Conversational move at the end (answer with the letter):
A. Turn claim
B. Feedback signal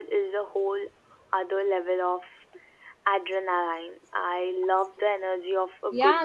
A